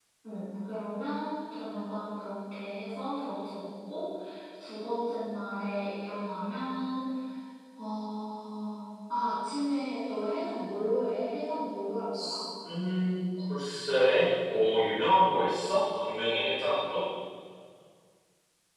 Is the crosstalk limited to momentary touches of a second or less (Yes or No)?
Yes